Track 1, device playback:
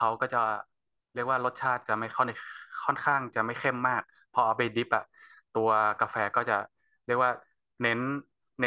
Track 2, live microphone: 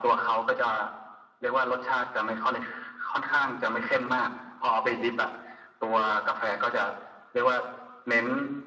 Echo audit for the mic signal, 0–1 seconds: echo only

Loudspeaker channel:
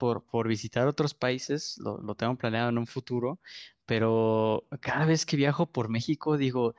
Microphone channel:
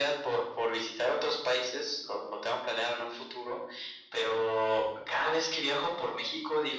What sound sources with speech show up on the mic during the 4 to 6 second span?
echo only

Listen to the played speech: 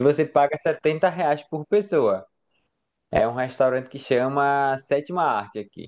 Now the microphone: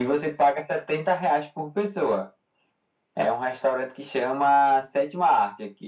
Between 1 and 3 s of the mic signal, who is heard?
echo only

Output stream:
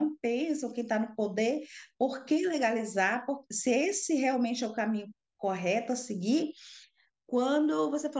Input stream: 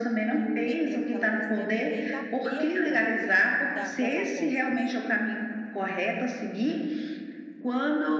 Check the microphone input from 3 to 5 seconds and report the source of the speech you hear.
both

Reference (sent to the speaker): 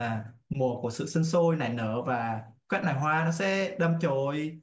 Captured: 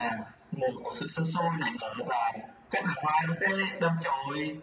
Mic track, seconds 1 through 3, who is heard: echo only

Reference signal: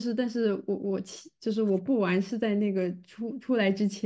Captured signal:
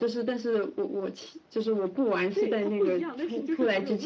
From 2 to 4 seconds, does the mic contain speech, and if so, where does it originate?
both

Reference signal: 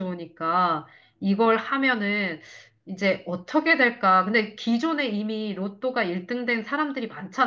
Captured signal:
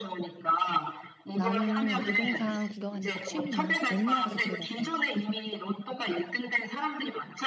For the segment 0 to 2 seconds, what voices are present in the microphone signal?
both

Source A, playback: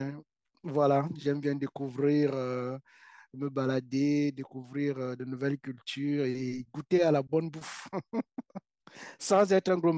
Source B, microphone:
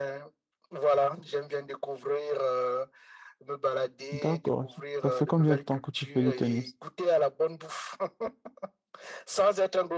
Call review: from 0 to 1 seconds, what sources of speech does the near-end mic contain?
echo only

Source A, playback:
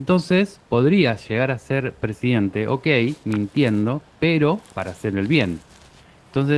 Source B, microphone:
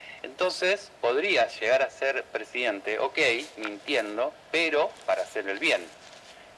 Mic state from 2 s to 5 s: echo only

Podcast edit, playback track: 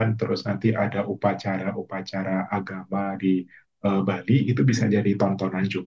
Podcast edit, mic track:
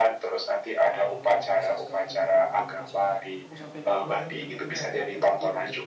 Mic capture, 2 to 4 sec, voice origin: both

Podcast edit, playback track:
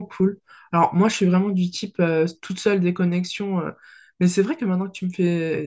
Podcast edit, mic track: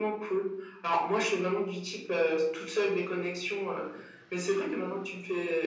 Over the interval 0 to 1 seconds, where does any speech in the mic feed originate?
echo only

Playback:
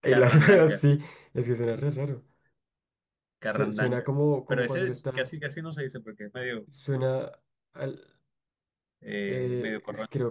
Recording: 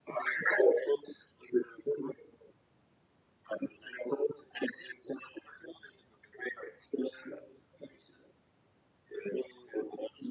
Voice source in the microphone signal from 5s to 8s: echo only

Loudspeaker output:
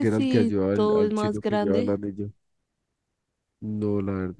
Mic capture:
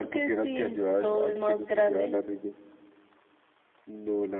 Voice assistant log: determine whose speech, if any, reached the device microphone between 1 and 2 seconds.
echo only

